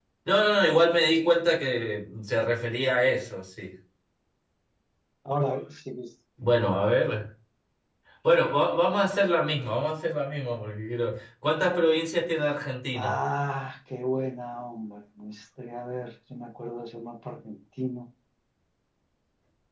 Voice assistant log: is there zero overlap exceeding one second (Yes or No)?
Yes